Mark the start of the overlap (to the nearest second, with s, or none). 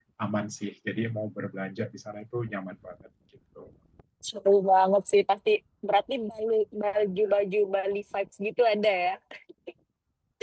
none